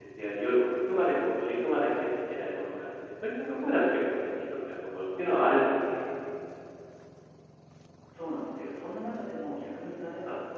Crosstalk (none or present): none